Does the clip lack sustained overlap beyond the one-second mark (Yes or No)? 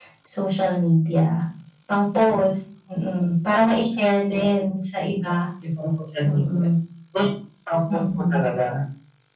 Yes